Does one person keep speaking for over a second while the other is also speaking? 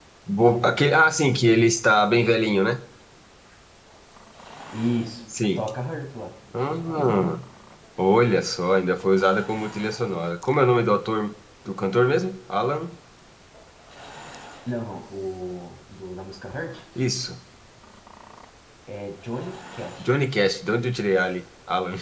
No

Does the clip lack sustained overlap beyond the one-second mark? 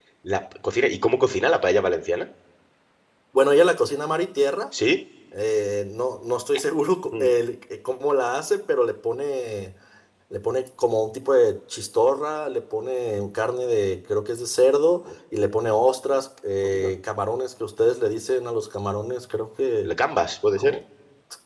Yes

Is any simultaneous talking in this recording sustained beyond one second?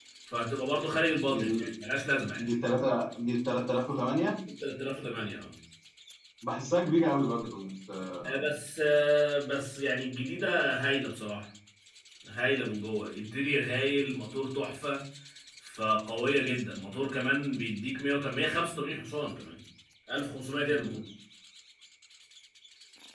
No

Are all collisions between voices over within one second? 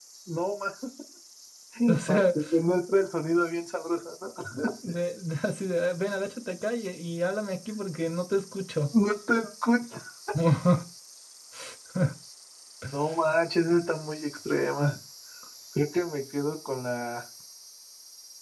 Yes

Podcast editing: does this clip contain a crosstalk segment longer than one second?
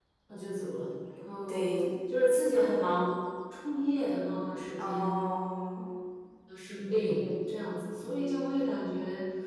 No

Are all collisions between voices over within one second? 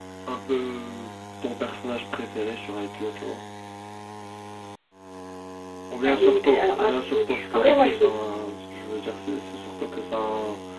No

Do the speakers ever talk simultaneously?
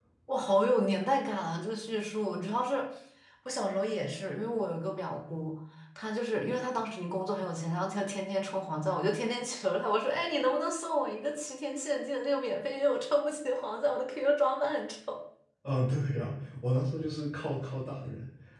No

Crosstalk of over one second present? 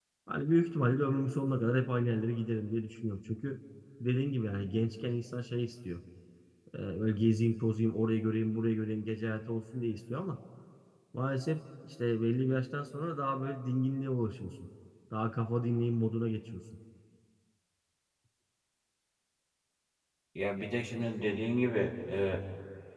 No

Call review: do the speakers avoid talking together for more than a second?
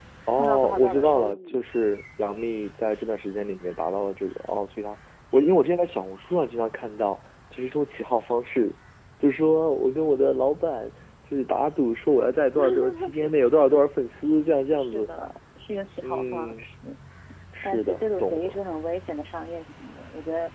No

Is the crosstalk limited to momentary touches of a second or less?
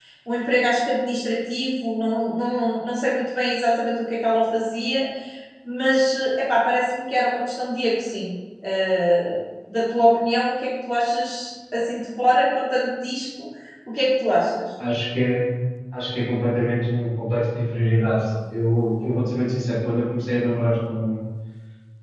Yes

